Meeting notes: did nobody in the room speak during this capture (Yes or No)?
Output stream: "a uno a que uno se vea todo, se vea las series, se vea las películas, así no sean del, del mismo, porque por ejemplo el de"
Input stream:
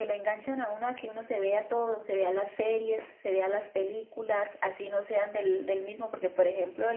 Yes